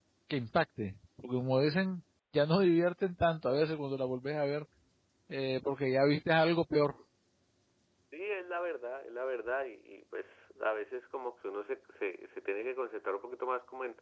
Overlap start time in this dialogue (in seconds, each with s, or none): none